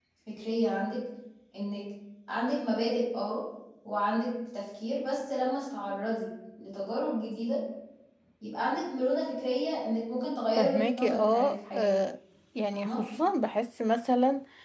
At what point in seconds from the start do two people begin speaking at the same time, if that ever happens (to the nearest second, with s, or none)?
11 s